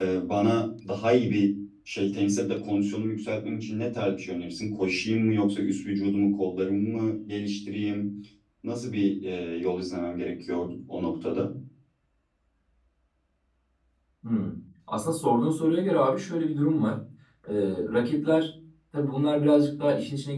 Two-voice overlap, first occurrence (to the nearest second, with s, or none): none